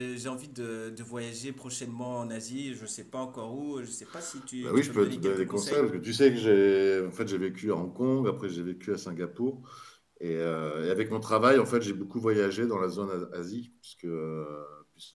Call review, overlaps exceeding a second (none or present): present